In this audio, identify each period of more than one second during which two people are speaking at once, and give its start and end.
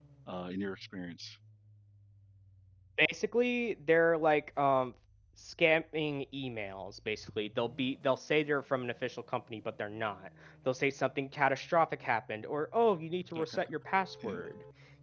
none

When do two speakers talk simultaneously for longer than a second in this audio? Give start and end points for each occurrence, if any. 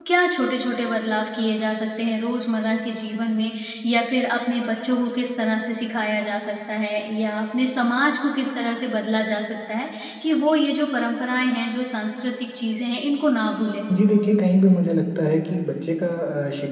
none

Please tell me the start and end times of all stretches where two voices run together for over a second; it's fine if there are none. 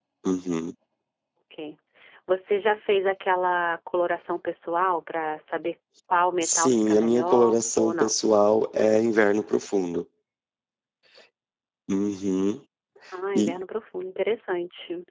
6.4-8.1

